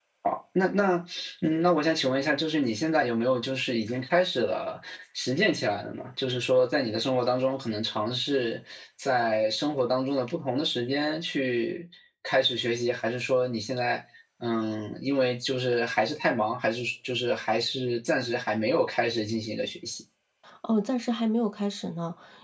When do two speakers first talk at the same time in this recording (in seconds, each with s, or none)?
none